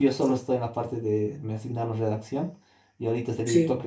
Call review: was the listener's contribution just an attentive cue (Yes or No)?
Yes